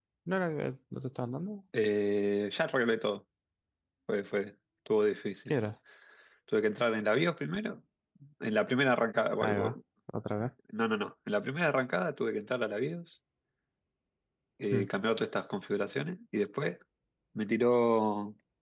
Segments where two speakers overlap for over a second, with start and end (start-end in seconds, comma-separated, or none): none